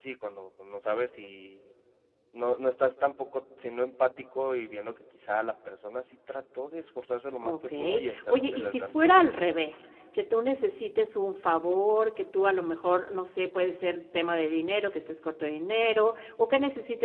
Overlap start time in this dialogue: 7.4 s

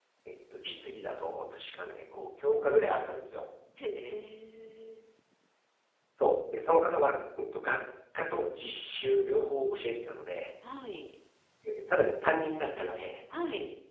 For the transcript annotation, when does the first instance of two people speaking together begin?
none

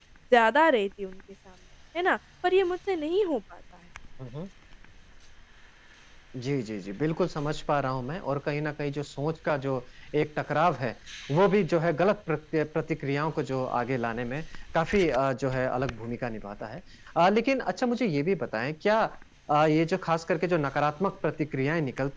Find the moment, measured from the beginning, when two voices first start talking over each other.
none

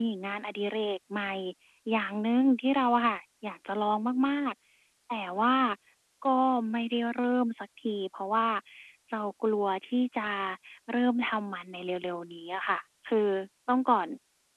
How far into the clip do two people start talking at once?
none

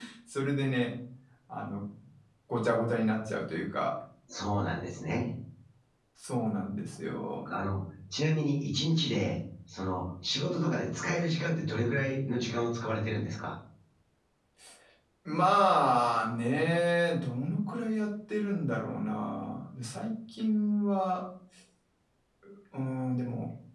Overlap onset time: none

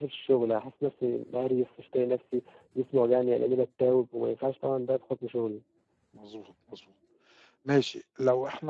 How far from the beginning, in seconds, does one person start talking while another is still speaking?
none

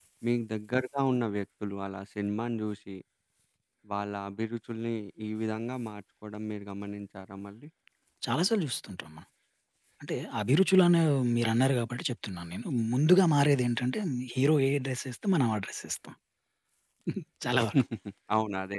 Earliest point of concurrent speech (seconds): none

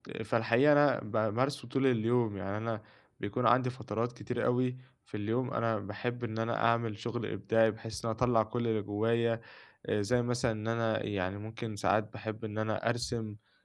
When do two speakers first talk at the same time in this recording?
none

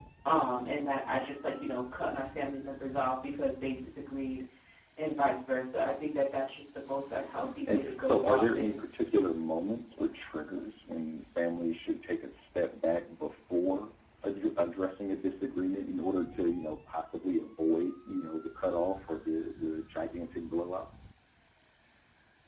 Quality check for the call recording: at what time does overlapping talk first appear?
7.4 s

